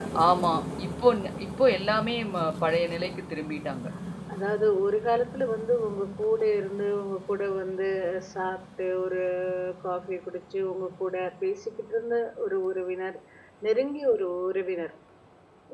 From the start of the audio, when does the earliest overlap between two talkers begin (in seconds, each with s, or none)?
none